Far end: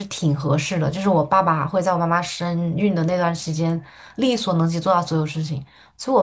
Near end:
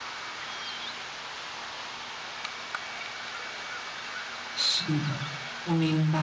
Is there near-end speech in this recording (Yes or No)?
Yes